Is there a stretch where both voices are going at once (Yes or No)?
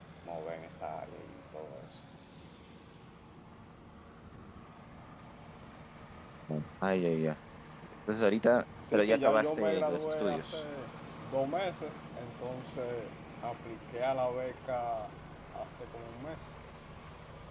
Yes